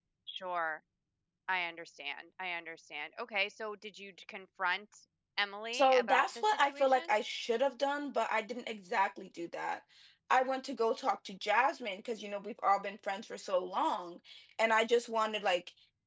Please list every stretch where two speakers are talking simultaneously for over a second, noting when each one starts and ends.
5.7-7.1

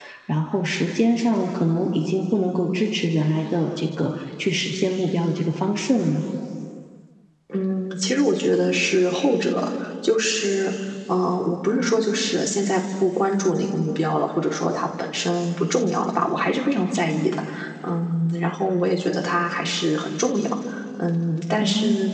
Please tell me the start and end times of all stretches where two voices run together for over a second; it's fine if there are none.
none

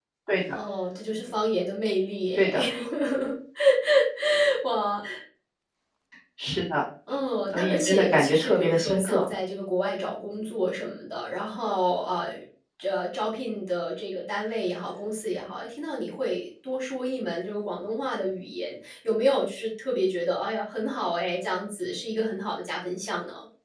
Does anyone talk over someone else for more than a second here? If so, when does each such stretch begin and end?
7.5-9.3

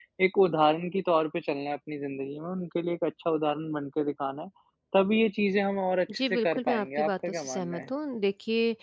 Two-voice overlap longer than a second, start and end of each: 6.3-7.9

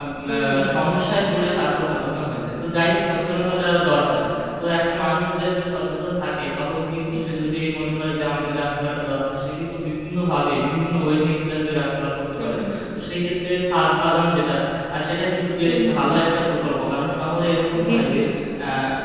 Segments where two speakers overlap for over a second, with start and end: none

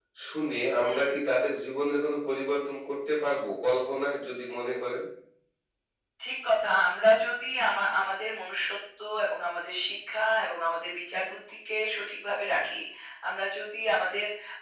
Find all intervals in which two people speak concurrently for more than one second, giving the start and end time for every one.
none

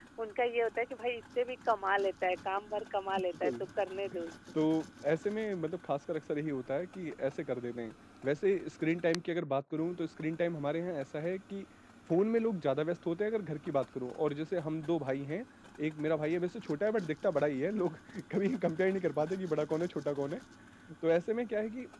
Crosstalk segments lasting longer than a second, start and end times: none

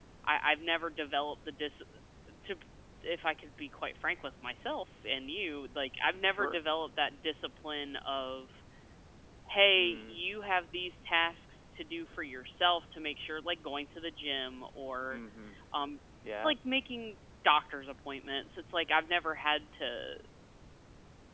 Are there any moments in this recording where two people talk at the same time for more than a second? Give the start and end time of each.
none

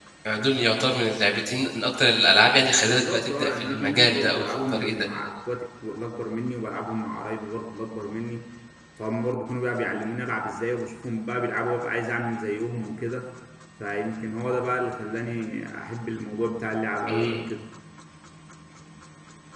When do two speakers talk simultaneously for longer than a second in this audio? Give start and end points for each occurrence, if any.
2.8-5.1

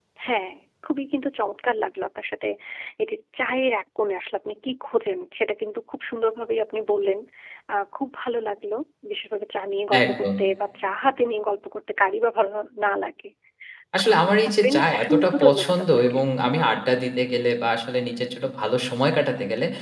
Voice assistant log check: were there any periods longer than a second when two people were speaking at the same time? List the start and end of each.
14.0-16.2

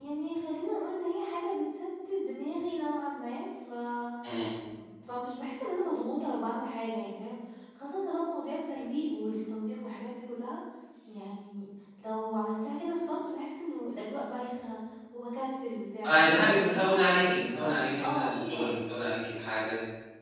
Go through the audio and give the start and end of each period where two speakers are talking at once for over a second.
16.1-18.7

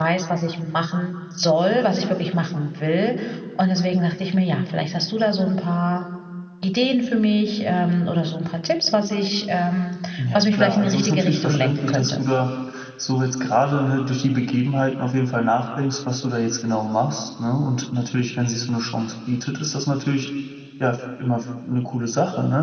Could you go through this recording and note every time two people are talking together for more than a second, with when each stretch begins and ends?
10.2-12.2

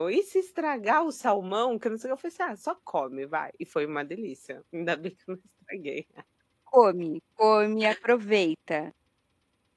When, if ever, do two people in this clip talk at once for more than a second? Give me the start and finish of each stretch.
none

